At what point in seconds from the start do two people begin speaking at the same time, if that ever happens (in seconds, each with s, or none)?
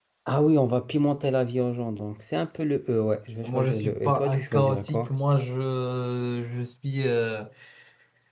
3.4 s